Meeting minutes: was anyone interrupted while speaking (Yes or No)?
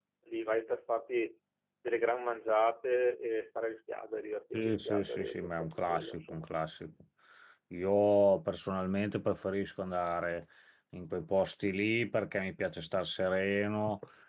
Yes